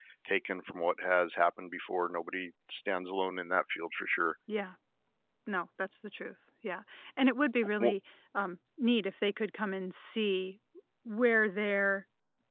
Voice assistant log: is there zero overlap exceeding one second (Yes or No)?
Yes